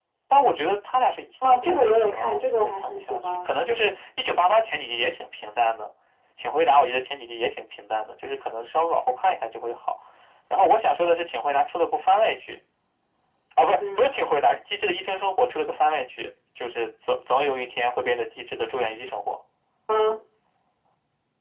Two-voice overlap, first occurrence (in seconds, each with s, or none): 1.6 s